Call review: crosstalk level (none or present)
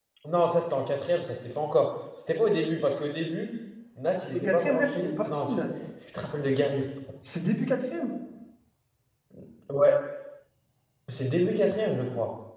present